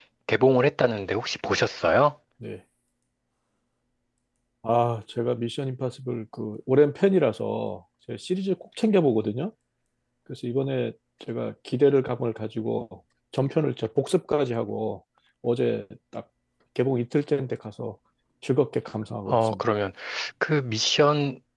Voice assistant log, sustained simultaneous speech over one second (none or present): none